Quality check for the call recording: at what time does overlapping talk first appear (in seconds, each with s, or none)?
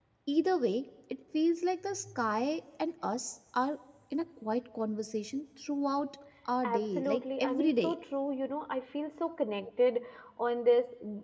6.6 s